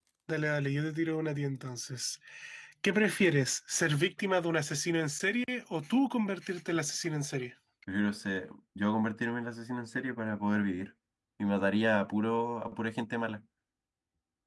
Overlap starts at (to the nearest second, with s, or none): none